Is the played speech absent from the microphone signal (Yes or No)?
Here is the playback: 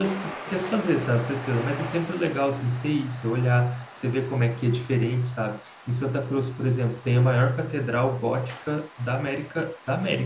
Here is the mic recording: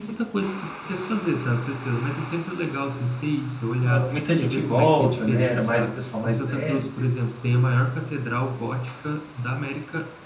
No